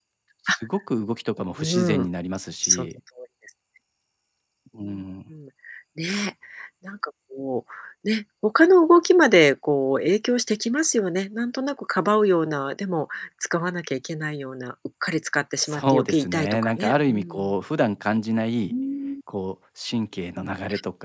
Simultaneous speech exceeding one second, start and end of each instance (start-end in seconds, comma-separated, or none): 15.6-17.5